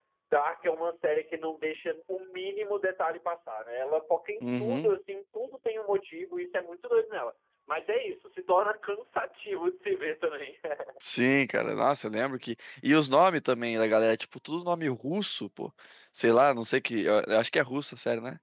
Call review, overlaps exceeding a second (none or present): none